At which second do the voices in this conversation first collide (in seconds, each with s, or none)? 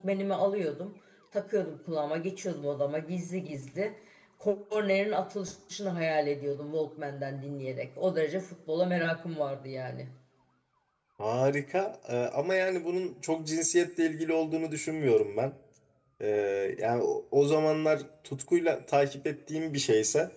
none